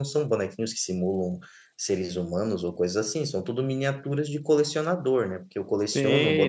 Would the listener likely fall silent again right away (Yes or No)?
No